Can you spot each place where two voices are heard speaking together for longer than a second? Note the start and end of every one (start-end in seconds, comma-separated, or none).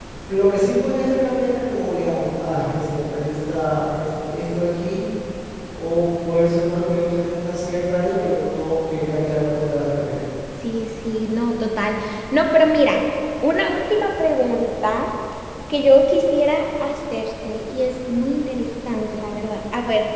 none